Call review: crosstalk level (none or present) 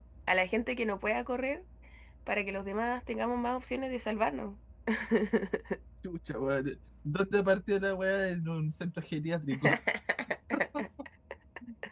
none